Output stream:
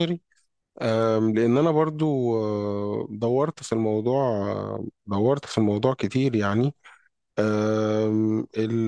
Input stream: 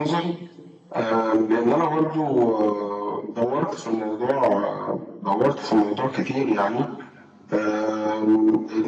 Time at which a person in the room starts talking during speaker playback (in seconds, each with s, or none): none